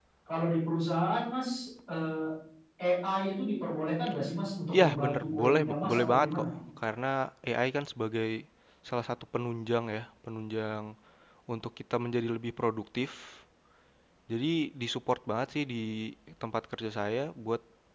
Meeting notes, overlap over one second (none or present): present